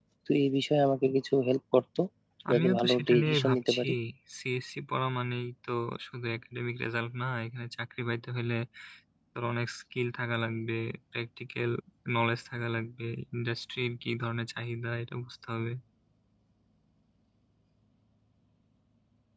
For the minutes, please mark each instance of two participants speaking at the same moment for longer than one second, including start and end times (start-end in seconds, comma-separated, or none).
2.5-3.9